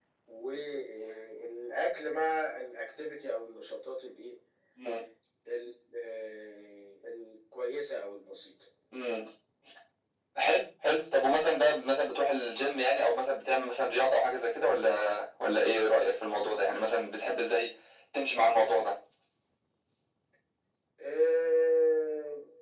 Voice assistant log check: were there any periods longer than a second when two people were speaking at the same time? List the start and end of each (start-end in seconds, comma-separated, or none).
none